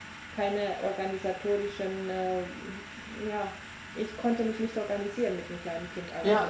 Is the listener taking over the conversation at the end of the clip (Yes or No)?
Yes